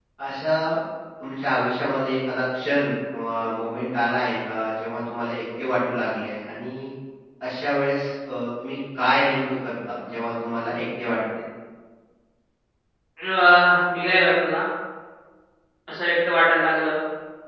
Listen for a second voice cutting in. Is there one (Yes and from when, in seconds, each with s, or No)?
No